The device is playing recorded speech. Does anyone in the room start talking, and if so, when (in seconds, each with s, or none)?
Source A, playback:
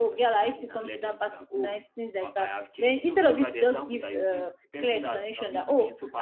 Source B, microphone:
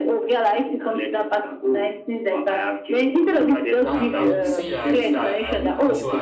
3.8 s